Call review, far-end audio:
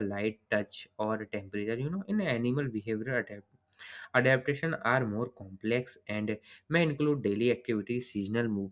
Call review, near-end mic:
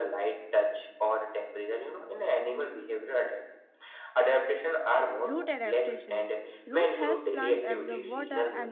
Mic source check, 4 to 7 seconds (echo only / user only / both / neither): both